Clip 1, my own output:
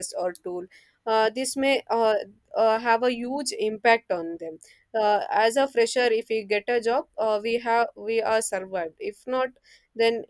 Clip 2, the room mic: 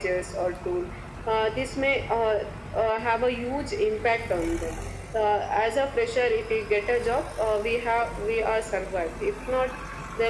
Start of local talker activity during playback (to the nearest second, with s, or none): none